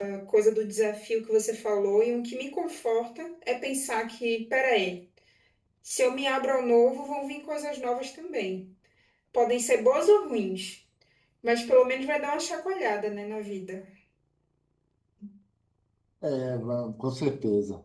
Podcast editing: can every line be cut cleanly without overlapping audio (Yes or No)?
Yes